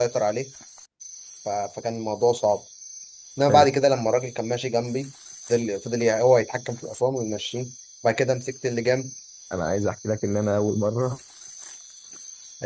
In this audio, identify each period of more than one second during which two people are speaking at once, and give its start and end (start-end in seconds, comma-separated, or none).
none